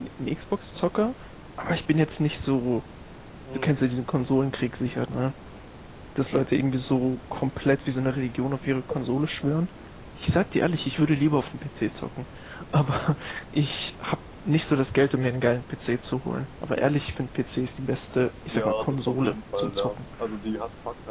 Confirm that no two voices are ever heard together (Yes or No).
No